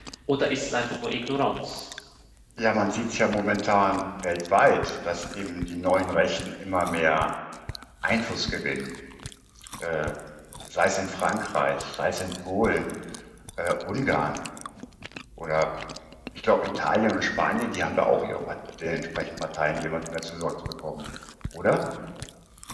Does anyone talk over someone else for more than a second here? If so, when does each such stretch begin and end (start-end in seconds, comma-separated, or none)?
none